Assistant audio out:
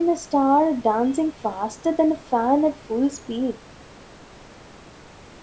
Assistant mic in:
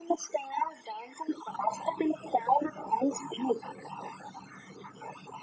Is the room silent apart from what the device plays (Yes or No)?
Yes